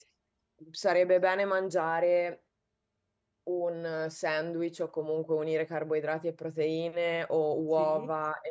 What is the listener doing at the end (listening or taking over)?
listening